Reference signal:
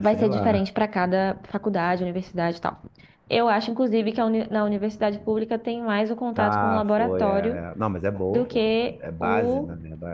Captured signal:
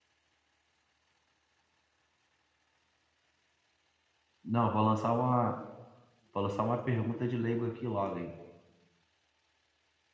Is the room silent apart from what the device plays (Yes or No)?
No